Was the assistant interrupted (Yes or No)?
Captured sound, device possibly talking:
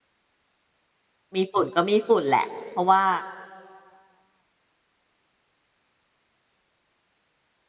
Yes